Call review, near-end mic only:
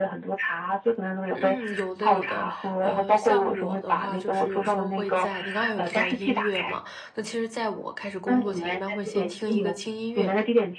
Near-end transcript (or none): 嗯，有的有的，呃，像我的话，就是有时候会在你刚才有提到音乐嘛，那其实在我开始工作前，一般会先听一个轻音乐，